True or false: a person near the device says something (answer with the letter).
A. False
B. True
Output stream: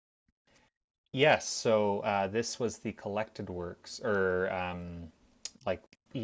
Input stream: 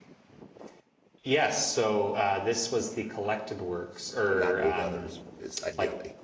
B